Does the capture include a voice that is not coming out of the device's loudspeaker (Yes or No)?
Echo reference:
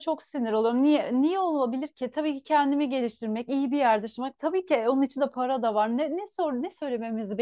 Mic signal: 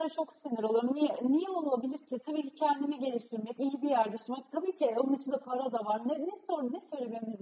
No